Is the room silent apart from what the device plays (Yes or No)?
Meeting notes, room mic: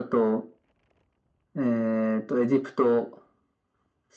Yes